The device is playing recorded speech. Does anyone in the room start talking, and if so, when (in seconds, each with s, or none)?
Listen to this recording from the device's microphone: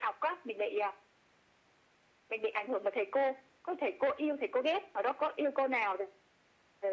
none